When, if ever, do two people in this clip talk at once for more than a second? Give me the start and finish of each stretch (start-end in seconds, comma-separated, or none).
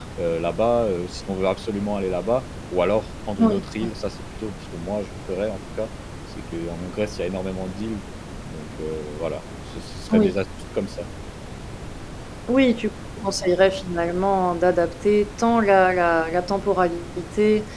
none